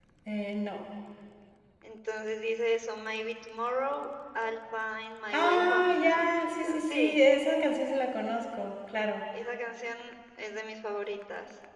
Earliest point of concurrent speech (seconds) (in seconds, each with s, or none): 5.3 s